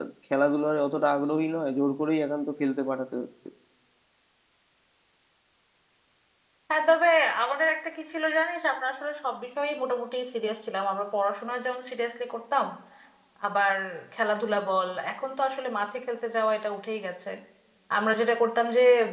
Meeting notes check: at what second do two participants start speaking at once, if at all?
none

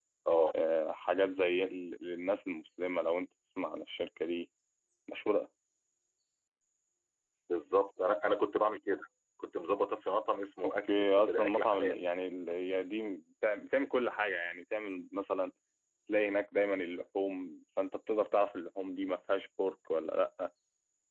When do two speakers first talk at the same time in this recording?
10.6 s

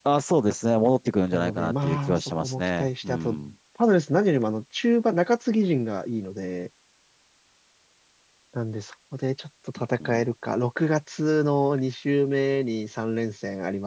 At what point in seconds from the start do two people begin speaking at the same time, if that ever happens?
1.3 s

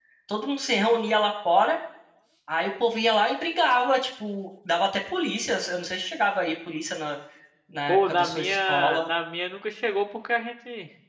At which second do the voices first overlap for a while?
7.9 s

